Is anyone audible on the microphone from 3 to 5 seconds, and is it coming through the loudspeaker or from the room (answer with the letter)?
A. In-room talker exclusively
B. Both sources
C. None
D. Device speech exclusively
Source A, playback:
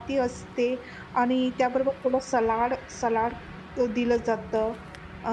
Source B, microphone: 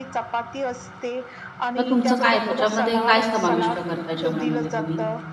B